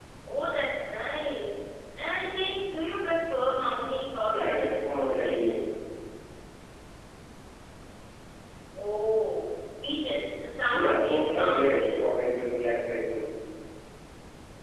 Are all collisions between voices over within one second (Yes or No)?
No